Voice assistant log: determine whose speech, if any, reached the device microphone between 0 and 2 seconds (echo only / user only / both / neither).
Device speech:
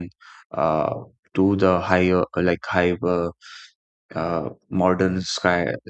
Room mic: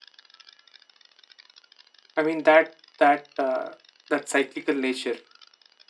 neither